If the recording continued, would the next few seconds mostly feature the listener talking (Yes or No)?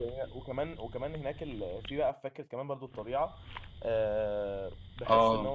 No